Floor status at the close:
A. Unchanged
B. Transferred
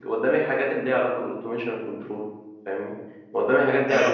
A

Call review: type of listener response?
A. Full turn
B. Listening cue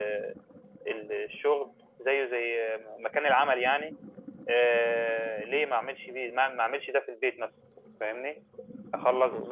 A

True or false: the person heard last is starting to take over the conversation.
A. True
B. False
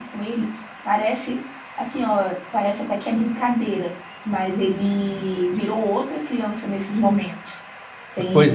A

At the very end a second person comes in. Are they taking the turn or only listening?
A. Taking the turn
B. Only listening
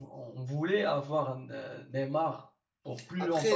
A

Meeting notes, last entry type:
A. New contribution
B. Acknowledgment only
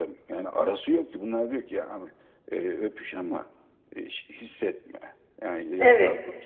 A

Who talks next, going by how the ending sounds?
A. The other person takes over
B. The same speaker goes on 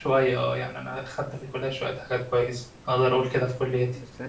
A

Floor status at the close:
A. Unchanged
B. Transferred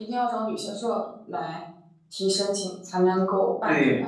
B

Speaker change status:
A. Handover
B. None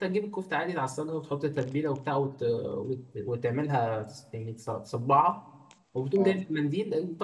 B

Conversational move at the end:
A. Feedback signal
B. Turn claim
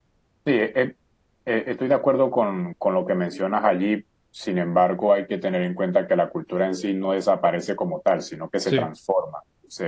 A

